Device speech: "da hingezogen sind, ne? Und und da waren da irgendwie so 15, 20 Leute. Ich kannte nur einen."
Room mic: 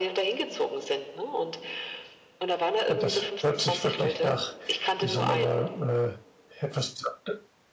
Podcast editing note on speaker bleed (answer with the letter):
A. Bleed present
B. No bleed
A